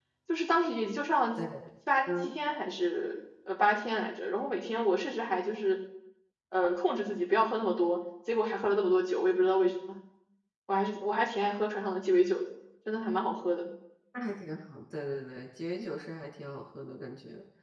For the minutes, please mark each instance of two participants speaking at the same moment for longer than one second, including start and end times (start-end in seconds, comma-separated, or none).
none